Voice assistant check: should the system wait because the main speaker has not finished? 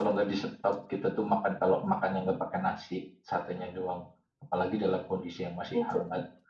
Yes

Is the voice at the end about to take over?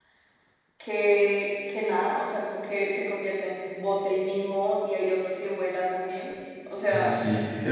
Yes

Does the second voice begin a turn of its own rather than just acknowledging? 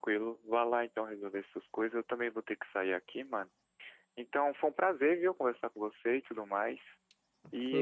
Yes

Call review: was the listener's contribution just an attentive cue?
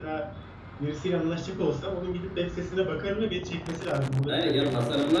No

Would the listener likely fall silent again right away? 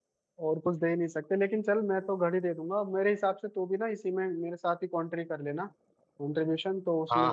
No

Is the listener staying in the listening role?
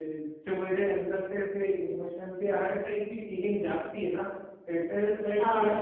Yes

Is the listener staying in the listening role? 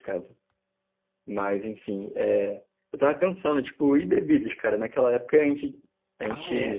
Yes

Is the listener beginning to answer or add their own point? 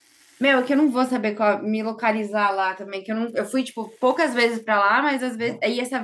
No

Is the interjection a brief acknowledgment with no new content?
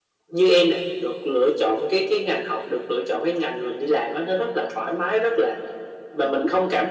Yes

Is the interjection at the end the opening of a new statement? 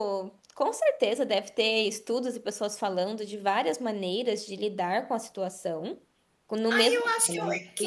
Yes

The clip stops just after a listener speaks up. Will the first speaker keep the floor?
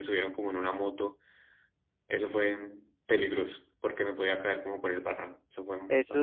No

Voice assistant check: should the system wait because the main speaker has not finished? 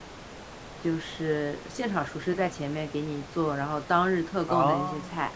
Yes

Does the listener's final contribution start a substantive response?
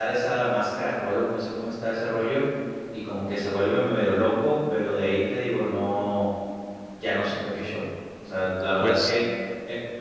No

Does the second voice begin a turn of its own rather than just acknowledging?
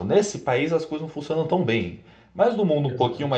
No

